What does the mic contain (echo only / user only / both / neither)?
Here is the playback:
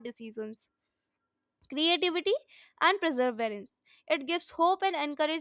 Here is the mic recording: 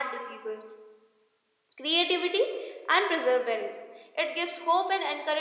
echo only